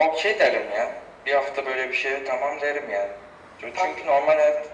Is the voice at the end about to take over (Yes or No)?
No